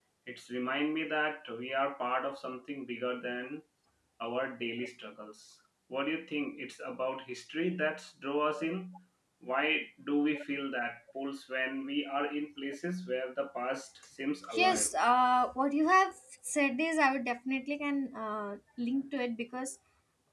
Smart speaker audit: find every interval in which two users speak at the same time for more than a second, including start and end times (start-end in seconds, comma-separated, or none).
none